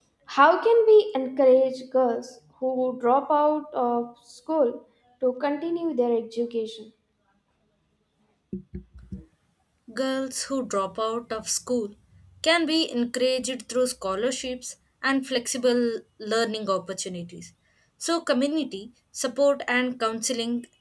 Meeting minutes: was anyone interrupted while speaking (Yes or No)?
No